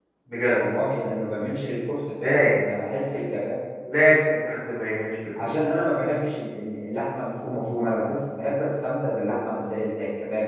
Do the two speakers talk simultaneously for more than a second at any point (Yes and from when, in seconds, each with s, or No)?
No